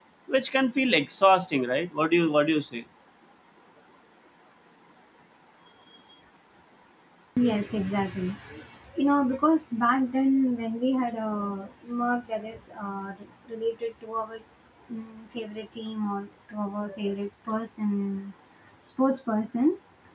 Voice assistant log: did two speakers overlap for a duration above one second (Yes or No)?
No